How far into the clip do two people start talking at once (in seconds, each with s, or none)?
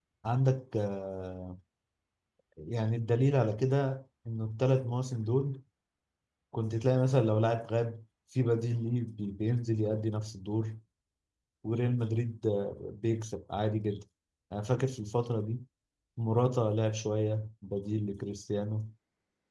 none